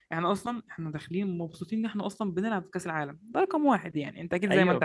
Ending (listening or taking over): taking over